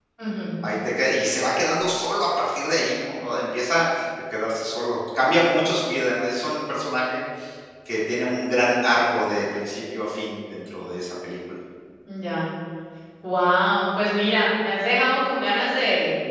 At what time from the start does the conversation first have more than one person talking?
none

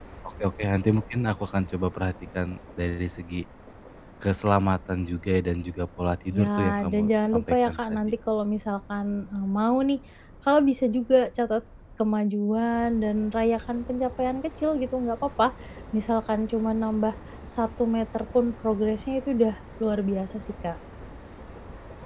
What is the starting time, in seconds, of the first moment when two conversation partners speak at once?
6.3 s

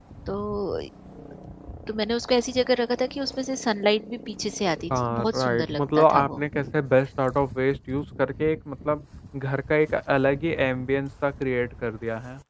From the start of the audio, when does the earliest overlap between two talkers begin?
4.9 s

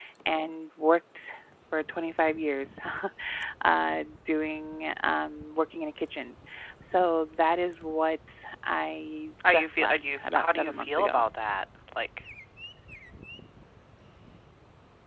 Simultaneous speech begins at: 9.5 s

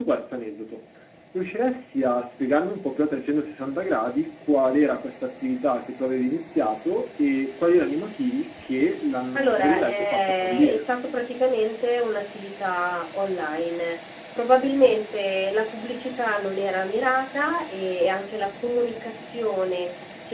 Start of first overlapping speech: 9.4 s

